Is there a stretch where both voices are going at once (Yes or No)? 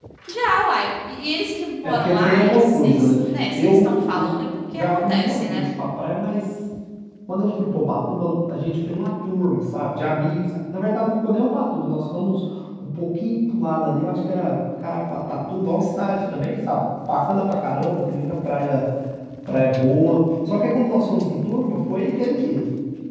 Yes